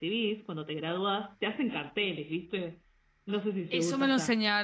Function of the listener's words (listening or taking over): taking over